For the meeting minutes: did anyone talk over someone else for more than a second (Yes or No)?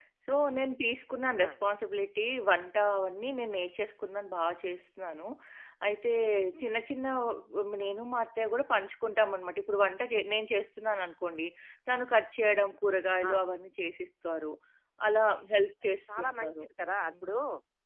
No